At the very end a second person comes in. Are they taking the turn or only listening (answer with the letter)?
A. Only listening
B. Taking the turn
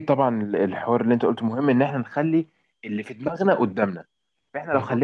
A